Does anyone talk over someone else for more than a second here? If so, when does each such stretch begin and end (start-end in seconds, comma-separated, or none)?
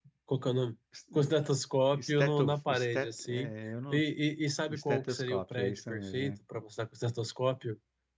2.1-3.5, 4.7-6.3